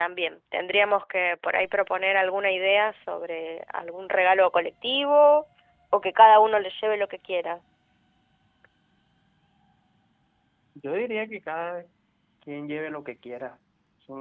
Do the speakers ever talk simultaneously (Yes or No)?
No